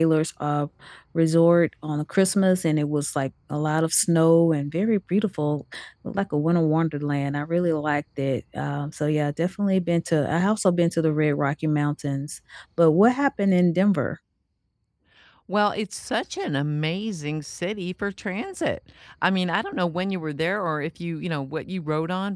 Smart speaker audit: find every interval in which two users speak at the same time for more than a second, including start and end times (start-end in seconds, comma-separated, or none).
none